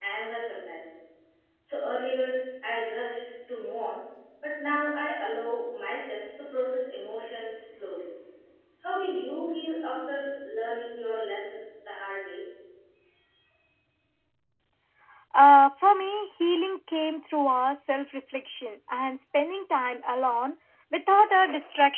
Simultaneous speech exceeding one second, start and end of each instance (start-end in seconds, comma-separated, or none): none